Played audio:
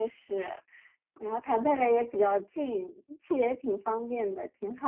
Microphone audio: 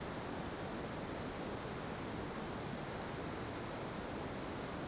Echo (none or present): none